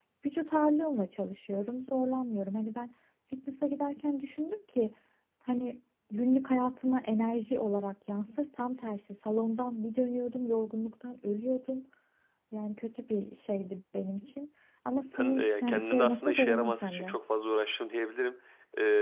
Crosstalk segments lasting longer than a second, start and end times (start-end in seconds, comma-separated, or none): 15.1-17.1